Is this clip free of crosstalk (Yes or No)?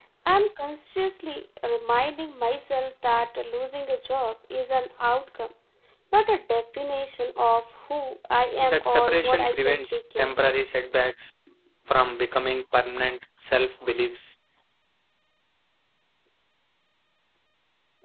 No